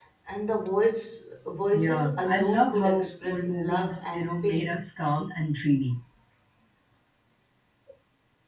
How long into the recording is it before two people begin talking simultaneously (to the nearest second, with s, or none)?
2 s